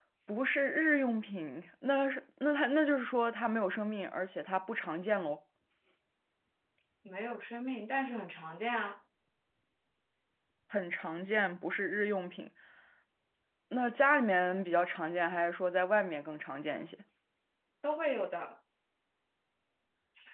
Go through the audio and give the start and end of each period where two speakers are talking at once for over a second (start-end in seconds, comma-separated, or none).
none